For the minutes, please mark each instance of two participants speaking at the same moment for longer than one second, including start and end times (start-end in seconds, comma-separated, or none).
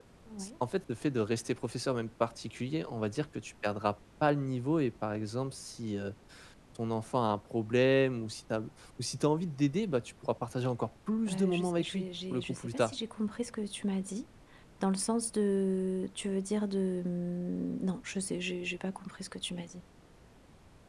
11.3-12.9